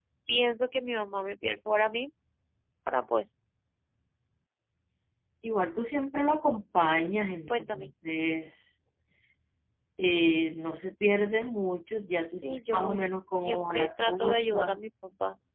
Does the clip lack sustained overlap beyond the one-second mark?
No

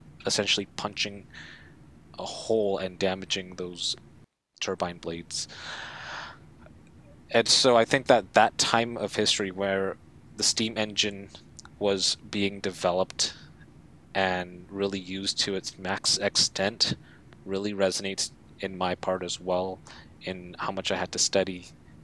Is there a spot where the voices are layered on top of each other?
No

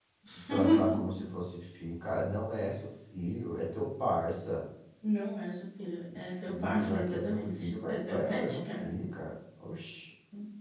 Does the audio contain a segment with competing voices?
Yes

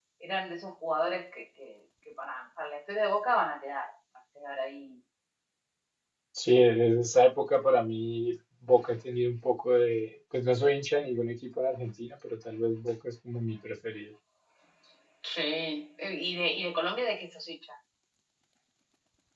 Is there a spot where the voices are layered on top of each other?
No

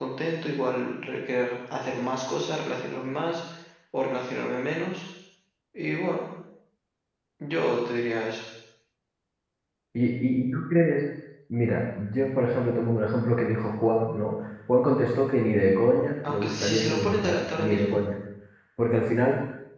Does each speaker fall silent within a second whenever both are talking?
No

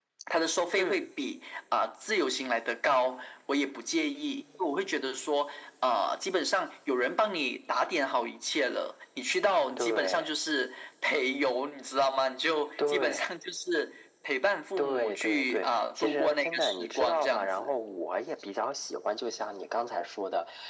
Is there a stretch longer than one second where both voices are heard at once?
Yes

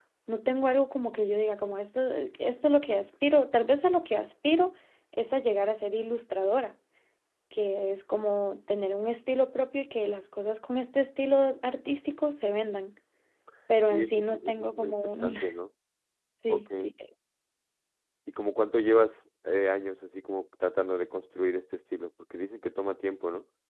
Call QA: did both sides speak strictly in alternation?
No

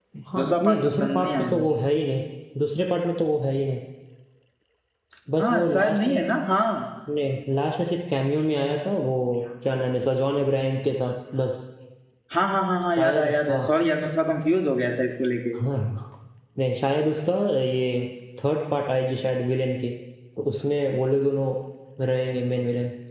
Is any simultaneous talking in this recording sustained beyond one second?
Yes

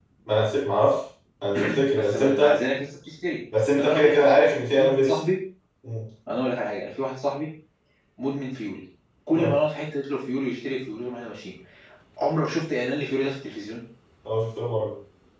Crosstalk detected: Yes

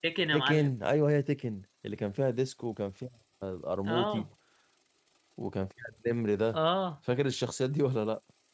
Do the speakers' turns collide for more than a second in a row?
No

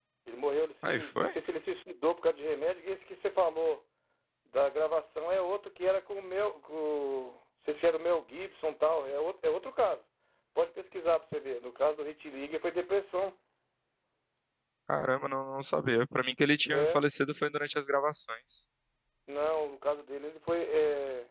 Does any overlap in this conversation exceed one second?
No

